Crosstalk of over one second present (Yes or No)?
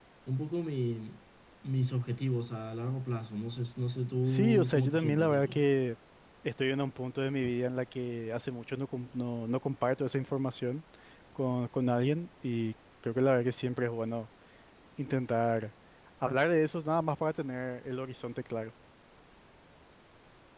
Yes